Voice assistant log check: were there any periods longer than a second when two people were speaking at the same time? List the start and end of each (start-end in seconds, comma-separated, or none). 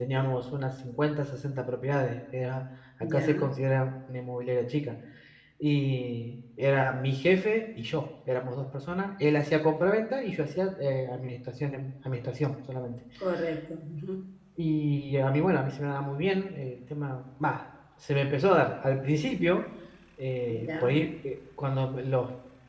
none